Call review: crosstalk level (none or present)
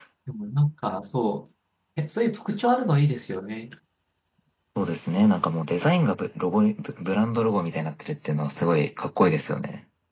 none